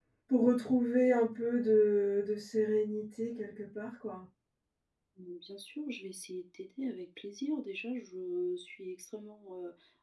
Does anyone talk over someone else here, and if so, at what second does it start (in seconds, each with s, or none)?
none